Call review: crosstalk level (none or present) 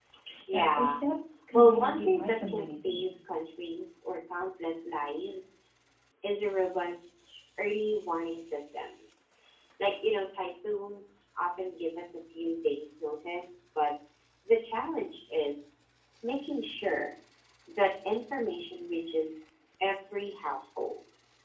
present